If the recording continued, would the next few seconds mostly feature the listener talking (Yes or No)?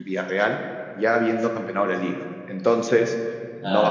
No